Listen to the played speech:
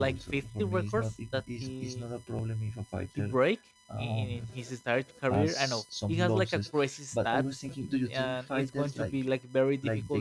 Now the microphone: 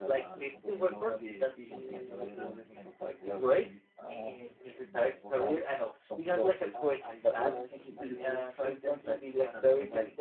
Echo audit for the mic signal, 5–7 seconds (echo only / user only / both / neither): both